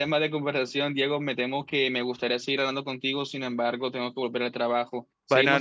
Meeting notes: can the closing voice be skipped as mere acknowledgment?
No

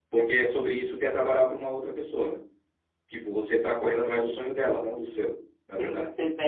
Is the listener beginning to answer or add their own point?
Yes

